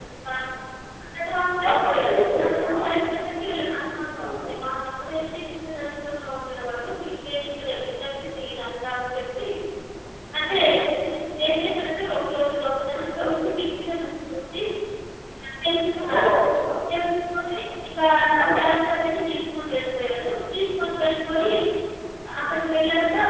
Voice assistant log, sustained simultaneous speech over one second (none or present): present